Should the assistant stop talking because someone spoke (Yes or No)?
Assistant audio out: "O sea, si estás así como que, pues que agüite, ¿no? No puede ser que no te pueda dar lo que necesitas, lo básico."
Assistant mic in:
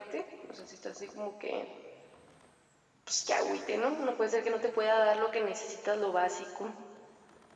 No